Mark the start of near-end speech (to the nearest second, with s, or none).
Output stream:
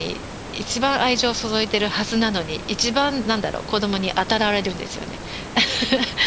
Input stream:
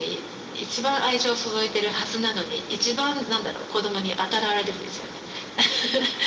none